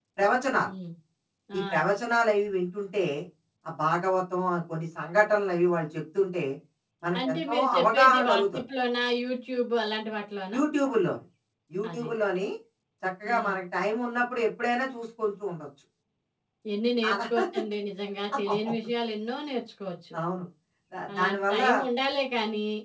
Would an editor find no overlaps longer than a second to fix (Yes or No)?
No